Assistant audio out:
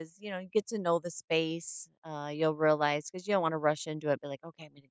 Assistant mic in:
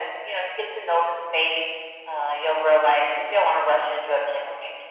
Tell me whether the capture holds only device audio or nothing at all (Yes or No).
Yes